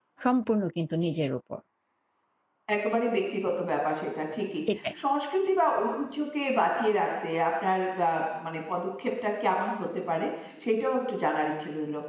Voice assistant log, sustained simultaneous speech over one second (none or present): none